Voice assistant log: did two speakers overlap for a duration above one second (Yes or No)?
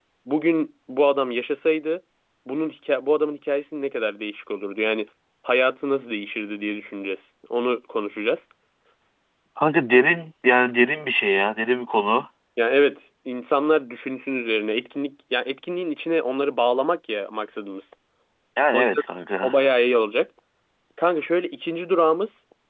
No